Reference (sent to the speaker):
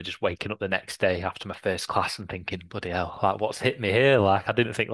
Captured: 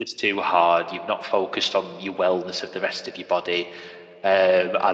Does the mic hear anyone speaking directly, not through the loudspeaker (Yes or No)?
Yes